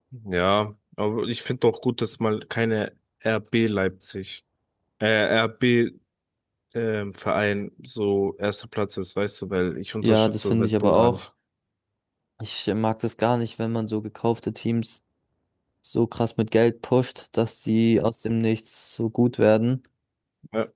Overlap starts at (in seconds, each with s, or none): 10.0 s